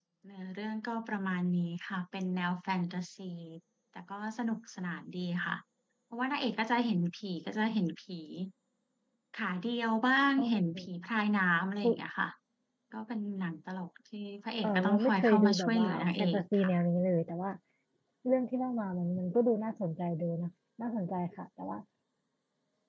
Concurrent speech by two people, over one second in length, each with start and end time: 14.6-16.7

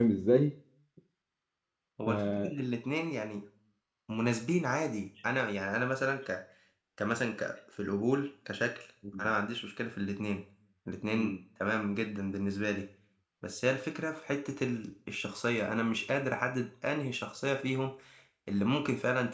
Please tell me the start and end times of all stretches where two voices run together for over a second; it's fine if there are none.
none

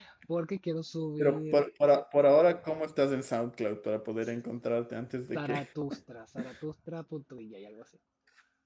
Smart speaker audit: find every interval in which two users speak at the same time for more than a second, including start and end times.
none

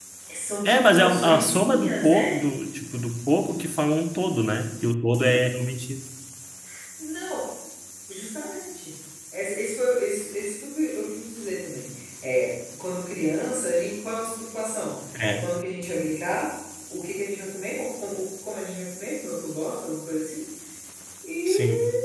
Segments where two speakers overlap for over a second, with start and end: 0.6-2.4

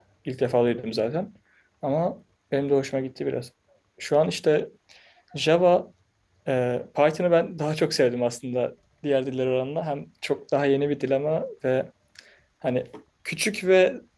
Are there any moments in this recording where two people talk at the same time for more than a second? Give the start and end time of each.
none

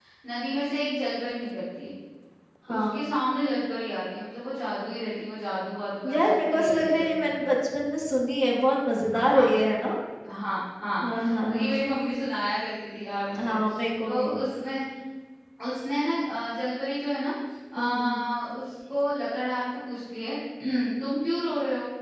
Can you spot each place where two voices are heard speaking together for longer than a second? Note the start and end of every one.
6.1-7.4

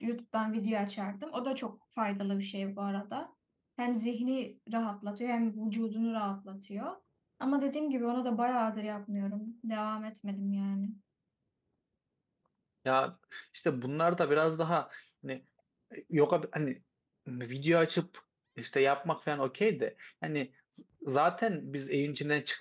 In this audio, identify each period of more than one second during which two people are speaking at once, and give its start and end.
none

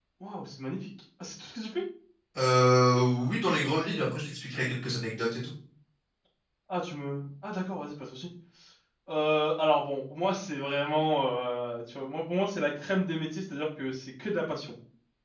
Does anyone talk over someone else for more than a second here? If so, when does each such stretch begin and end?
none

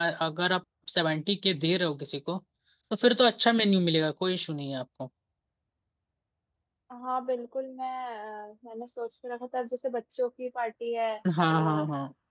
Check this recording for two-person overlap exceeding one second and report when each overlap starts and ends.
none

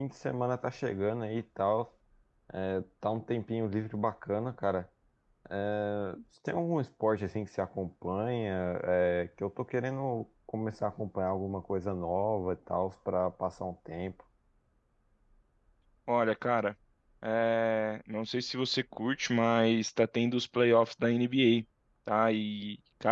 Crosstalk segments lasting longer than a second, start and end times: none

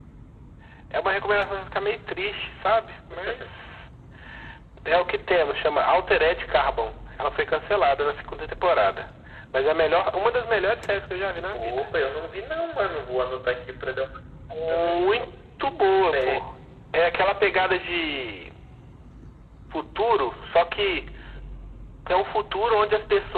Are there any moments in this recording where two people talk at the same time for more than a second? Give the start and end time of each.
none

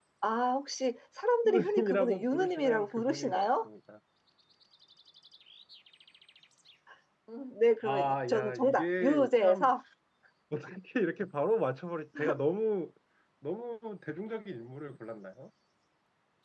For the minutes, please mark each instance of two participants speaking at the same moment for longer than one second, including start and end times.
1.4-3.7, 7.9-9.7

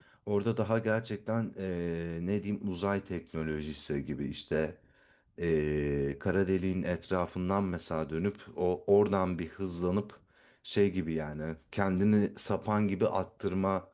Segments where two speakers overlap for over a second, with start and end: none

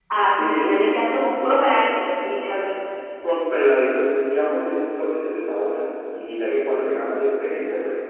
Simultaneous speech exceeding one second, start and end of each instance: none

